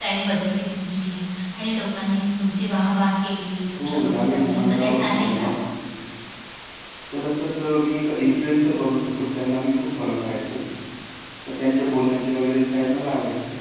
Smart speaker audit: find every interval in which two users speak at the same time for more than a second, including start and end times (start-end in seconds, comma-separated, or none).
3.8-5.5